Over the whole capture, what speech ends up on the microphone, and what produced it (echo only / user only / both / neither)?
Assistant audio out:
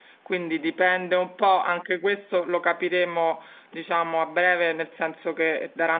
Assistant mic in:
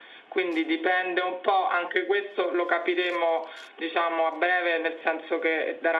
echo only